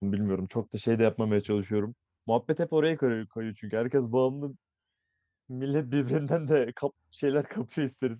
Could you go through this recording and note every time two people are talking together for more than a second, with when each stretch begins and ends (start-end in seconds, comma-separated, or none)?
none